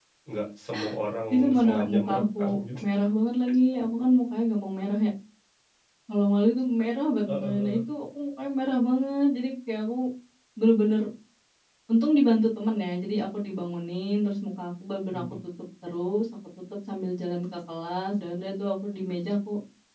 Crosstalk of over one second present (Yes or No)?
Yes